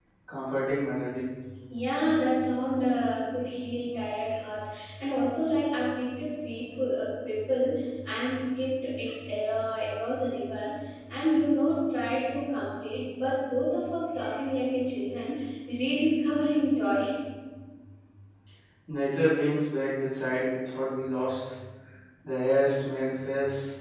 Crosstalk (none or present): none